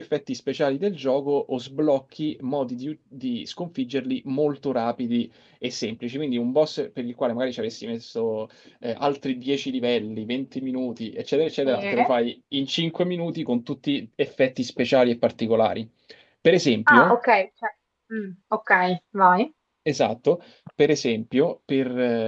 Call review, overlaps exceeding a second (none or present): none